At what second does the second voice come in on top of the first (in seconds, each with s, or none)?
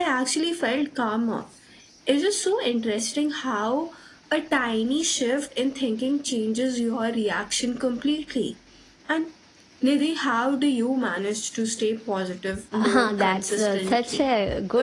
12.7 s